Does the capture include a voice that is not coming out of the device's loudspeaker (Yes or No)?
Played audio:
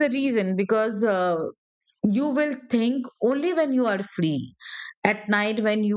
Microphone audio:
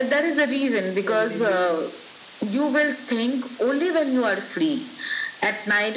Yes